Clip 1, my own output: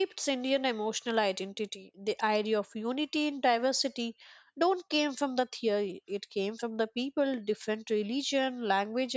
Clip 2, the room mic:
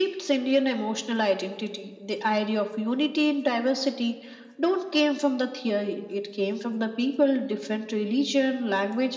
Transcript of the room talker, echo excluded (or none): none